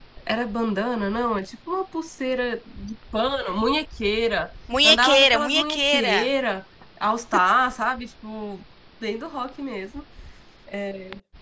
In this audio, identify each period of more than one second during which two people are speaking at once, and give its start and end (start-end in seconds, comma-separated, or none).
4.8-6.3